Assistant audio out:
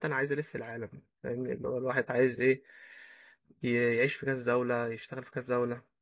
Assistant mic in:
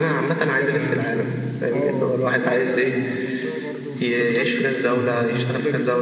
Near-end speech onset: 0.4 s

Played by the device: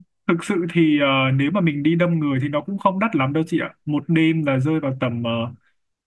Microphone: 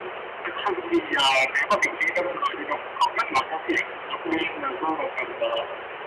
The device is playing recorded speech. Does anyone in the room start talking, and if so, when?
none

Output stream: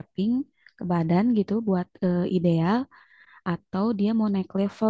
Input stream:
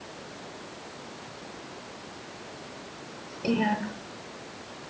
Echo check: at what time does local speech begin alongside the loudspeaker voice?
3.4 s

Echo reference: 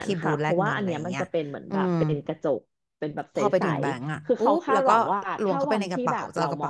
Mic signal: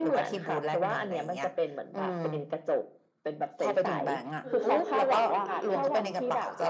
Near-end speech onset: 4.4 s

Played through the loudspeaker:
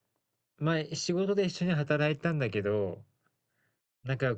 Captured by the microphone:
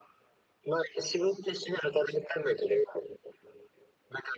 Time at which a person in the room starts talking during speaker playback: none

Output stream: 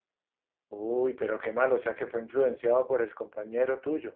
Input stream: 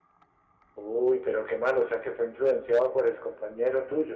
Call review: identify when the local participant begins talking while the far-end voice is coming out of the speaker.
none

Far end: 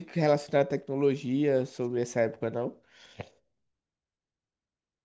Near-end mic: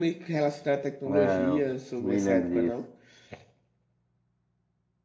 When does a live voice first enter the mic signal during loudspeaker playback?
1.1 s

